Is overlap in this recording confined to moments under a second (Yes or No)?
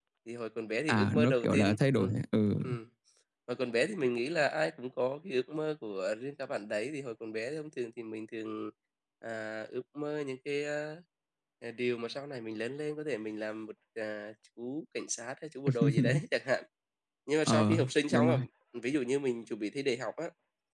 No